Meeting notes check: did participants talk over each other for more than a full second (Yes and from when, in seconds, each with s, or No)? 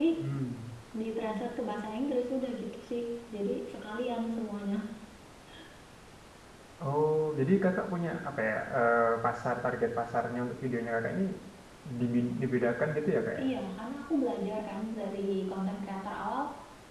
No